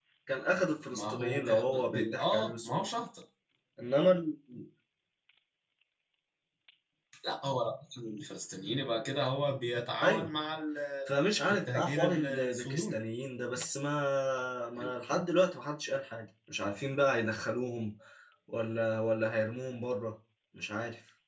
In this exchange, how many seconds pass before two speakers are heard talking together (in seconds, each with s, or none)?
0.9 s